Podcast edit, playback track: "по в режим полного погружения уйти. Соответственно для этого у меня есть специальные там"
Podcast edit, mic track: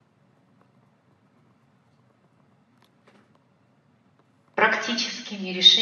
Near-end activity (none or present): present